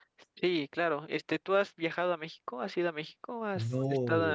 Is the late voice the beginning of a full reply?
Yes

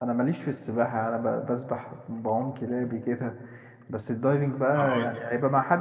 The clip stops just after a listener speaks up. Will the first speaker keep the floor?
Yes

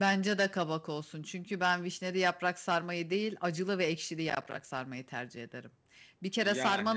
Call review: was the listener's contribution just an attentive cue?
Yes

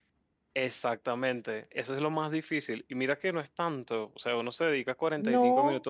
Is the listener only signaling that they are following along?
Yes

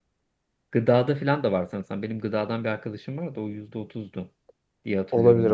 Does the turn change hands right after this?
Yes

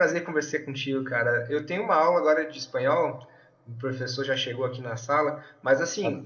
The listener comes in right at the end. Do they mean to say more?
No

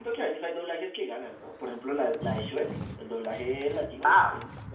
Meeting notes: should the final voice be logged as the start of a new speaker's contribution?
Yes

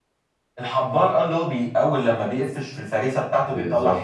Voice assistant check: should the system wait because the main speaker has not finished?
No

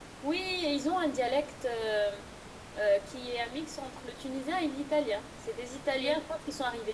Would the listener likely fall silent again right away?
Yes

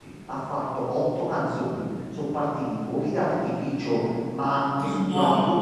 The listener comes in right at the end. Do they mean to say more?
No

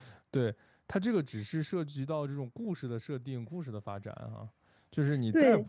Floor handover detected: No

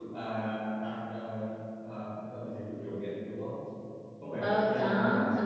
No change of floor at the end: No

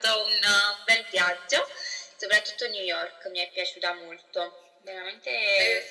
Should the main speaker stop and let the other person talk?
Yes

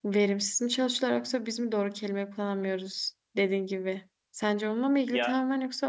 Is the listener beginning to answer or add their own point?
No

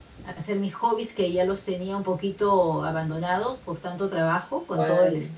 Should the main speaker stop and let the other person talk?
No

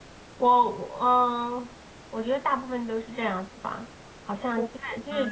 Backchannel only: Yes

